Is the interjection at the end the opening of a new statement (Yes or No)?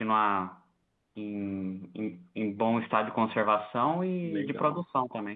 Yes